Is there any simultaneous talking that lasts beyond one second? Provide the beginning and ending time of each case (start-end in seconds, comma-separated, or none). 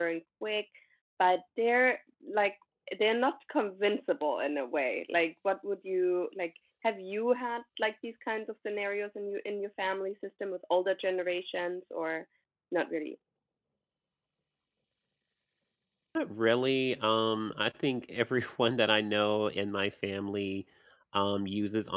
none